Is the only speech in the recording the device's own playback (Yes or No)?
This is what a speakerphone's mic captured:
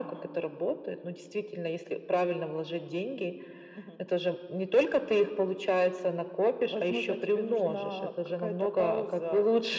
Yes